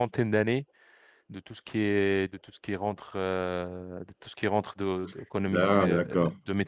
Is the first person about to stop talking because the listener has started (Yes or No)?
No